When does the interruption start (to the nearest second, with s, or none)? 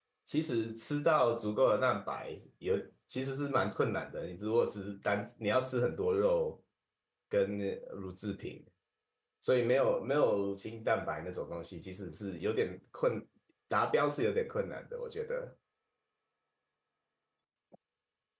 none